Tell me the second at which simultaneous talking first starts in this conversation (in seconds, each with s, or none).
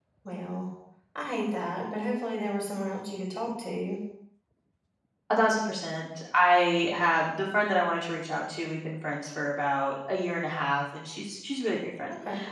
none